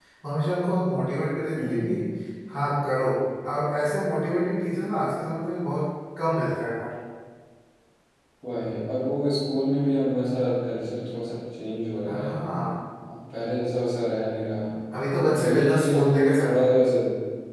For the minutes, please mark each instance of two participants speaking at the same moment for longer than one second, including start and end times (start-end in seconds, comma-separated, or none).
15.3-16.8